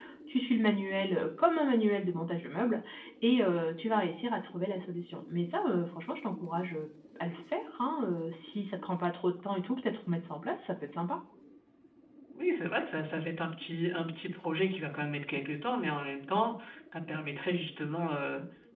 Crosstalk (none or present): none